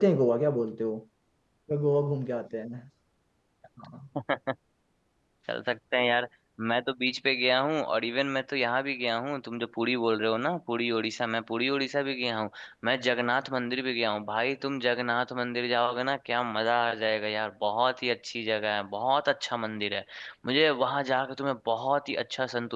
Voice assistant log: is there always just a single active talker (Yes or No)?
Yes